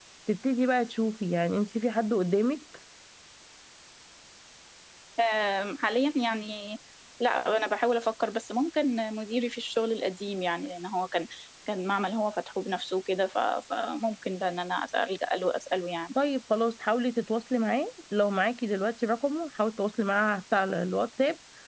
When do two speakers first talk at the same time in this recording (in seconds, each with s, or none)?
none